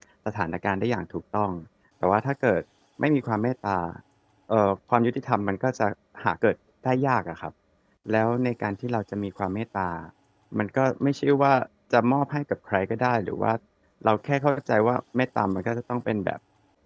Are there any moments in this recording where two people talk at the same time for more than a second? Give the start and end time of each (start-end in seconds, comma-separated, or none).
none